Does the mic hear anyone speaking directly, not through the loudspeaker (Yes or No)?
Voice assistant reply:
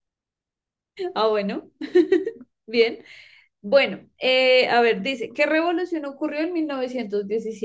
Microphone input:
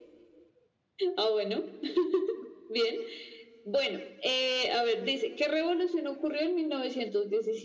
No